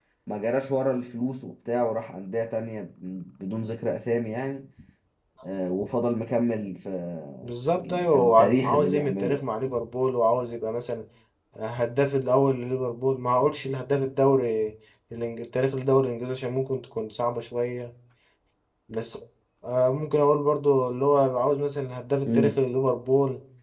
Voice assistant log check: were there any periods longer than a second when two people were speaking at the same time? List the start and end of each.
7.8-9.5

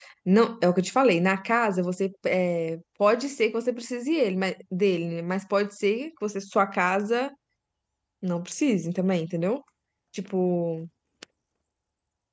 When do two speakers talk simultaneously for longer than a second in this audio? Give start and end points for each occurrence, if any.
none

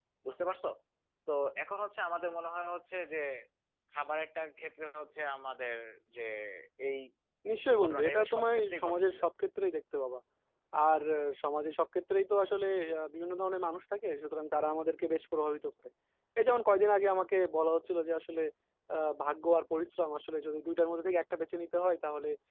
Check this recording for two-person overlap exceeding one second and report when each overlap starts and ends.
7.7-9.2

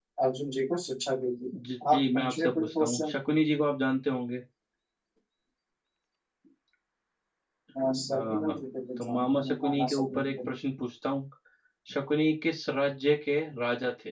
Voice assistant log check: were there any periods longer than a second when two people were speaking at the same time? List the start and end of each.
1.9-3.1, 9.0-10.4

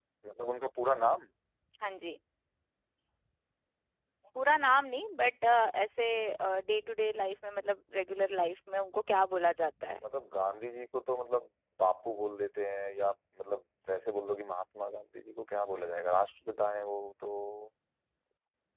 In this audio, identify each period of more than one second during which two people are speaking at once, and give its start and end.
none

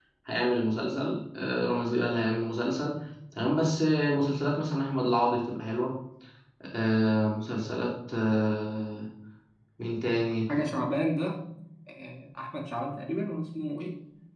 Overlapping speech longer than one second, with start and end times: none

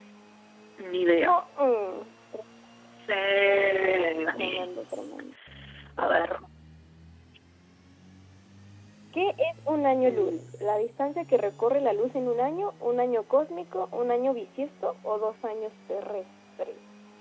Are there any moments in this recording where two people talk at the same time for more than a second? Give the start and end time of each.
none

